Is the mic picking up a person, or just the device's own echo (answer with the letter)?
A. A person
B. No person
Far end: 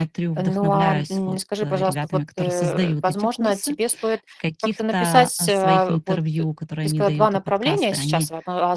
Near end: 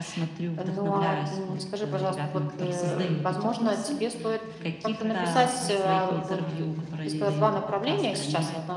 A